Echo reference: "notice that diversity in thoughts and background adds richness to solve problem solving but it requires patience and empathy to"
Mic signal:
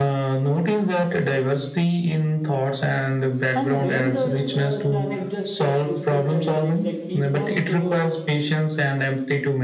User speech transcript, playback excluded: and when the trust and it just uh, respect the exits like teamworks uh,

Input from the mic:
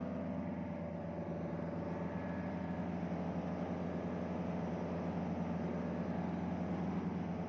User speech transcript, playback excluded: none

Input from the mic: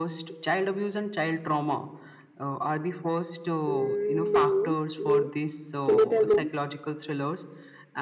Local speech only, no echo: Mm, no, no. Can you tell more?

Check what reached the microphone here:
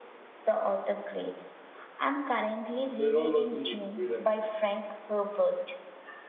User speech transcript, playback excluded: trilogy is brilliant.

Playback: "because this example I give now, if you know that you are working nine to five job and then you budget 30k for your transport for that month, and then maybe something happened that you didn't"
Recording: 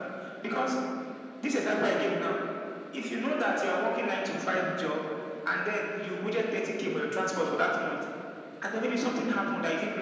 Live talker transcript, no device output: none

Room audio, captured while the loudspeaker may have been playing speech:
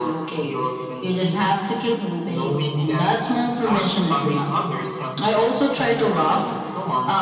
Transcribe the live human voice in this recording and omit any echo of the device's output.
none

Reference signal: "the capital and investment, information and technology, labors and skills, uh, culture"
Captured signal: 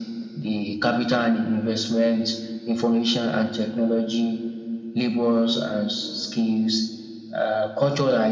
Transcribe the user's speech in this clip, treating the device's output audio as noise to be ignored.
none

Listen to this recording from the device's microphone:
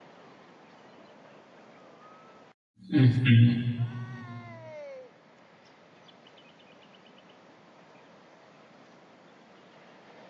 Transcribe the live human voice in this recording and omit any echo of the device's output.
Mhm.

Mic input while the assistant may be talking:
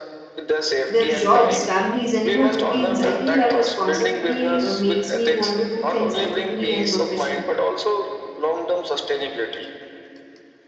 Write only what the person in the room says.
their jobs, families, and even routines. I think that responsibility uh, makes me want to do things ethically and professionally.

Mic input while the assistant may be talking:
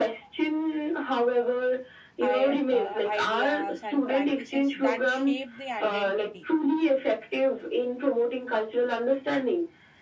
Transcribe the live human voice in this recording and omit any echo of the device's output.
I, uh, ideas and practices that shape the identity

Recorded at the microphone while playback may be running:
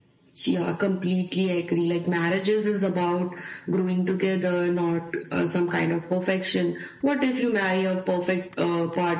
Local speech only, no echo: none

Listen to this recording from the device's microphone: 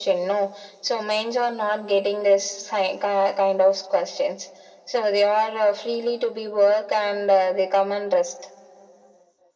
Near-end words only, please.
none

